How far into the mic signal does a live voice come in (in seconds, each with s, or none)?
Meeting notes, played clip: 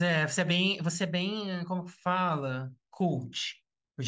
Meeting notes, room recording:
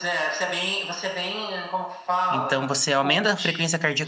2.3 s